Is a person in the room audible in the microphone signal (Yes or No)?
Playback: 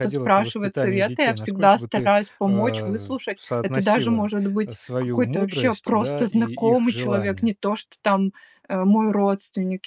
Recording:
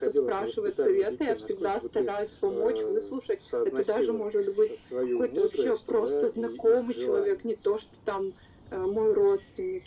No